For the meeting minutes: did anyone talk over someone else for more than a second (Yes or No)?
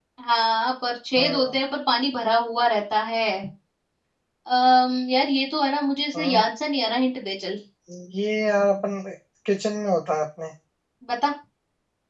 No